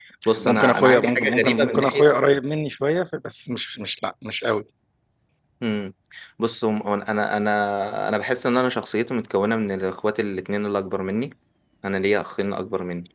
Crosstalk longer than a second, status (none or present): present